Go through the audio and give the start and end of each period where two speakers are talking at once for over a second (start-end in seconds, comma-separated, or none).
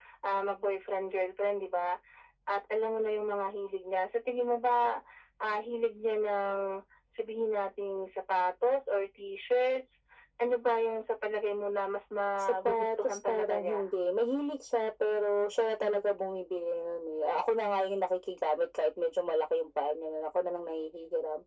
12.4-13.9